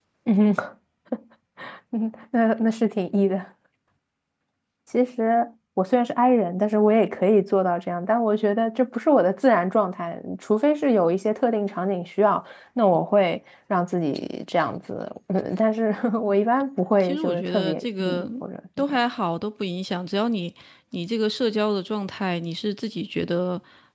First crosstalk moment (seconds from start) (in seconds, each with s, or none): 17.0 s